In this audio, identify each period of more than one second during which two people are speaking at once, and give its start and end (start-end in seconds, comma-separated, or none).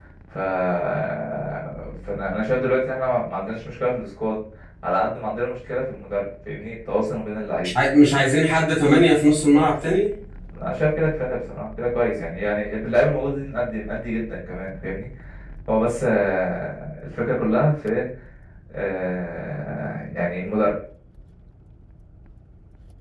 none